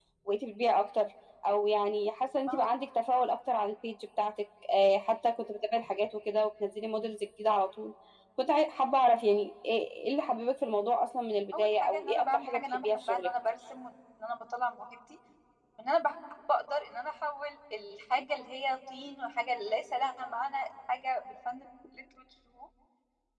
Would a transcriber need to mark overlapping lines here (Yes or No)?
Yes